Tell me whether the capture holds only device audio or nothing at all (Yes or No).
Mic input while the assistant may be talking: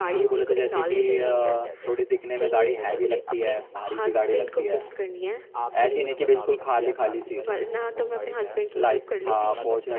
No